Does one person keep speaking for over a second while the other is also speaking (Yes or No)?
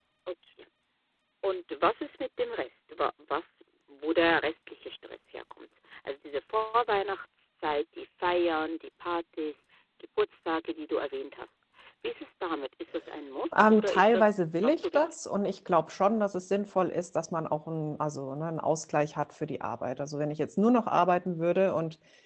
Yes